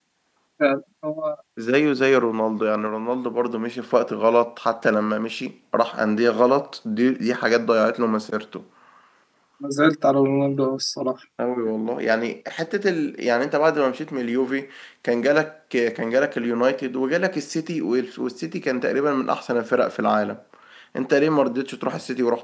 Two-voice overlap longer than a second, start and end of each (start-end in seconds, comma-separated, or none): none